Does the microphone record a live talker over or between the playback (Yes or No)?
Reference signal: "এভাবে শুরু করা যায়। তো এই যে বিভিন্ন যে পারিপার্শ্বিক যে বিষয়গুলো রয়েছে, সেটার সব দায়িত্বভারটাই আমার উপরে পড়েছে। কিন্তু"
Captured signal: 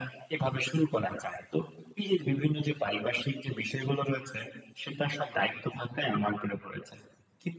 No